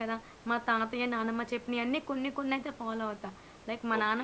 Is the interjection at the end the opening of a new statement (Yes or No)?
Yes